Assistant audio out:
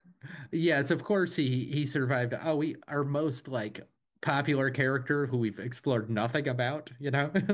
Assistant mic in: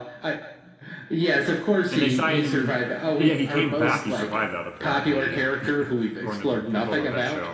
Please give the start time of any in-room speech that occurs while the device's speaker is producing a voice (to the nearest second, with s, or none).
2 s